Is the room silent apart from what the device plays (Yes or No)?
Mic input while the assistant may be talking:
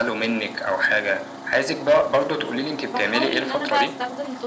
No